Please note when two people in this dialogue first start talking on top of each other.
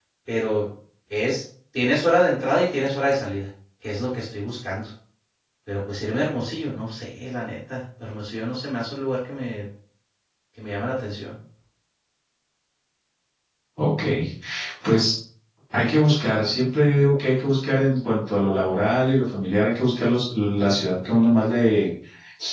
none

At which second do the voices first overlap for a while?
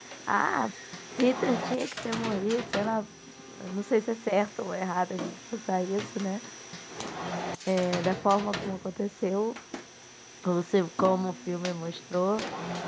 none

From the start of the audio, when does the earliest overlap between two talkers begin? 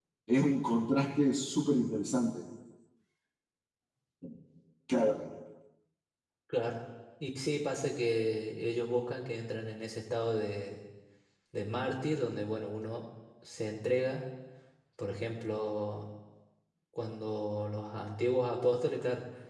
none

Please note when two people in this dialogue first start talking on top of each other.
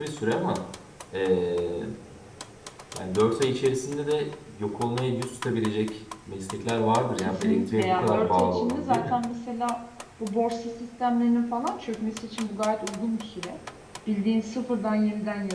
7.2 s

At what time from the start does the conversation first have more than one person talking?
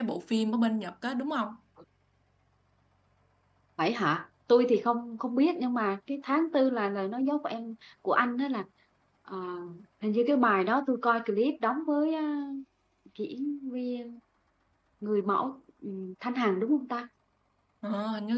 none

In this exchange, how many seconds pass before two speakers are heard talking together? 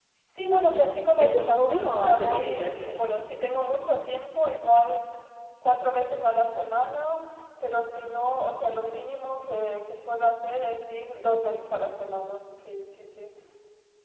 1.2 s

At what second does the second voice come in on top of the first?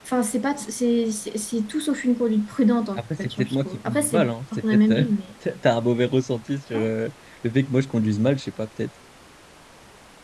3.0 s

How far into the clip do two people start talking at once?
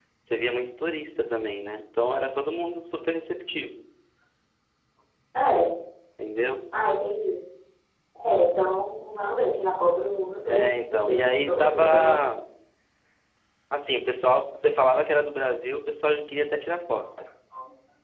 10.5 s

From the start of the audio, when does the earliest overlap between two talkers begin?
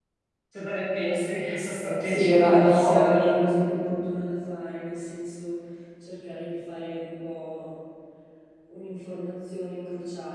2.0 s

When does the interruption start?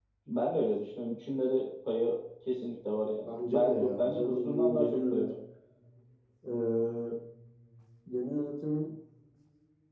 3.3 s

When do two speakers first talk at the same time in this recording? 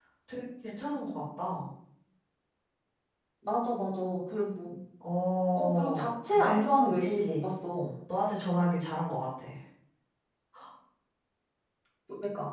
5.5 s

